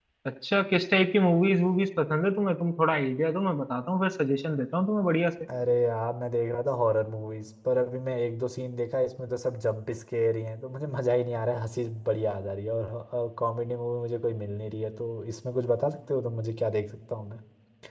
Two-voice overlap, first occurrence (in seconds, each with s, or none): none